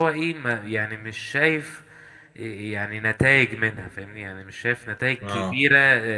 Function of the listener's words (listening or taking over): listening